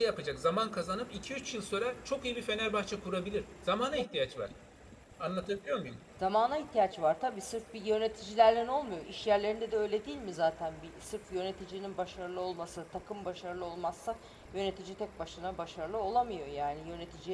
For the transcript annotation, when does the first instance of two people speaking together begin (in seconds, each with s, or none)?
none